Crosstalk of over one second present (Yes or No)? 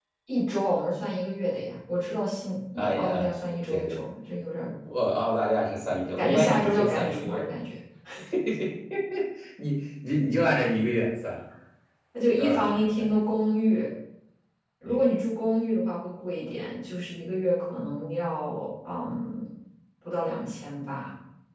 Yes